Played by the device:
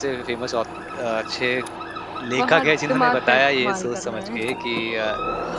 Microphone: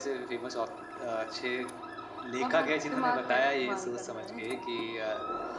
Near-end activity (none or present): none